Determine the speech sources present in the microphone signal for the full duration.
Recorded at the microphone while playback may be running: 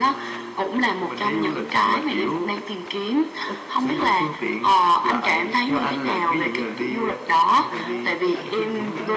both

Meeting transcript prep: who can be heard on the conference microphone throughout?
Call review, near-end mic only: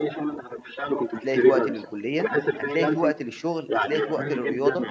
both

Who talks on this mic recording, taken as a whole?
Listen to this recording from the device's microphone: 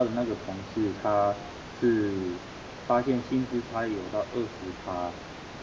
user only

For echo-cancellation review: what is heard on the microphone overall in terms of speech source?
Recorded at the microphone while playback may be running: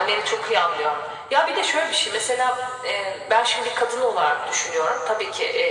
echo only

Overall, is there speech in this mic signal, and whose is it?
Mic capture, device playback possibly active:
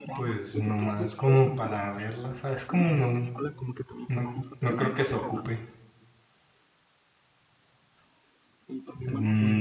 both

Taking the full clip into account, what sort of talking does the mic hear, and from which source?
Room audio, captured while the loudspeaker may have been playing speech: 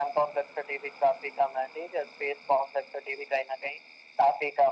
echo only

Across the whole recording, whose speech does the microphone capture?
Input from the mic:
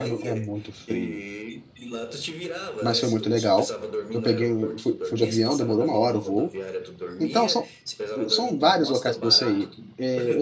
both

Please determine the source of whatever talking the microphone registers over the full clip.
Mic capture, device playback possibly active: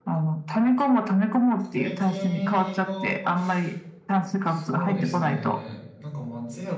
both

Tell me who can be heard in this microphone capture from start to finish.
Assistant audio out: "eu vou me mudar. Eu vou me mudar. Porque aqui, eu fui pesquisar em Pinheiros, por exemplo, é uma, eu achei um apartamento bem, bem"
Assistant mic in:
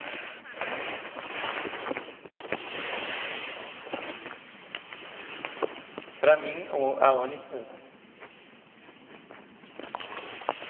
user only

